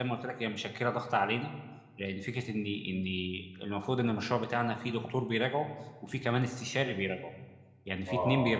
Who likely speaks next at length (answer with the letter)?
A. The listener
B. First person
B